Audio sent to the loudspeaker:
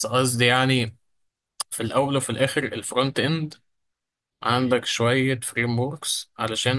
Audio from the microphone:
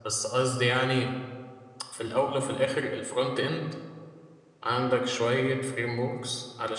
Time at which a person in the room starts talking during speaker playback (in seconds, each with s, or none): none